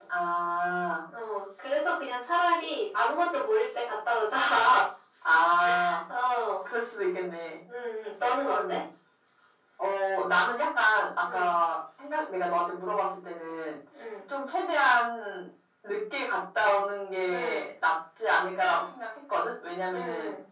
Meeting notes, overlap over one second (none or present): none